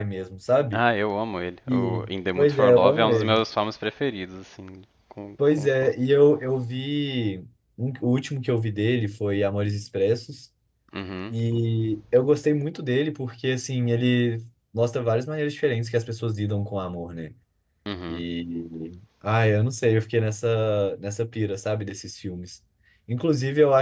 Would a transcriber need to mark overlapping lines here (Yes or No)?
Yes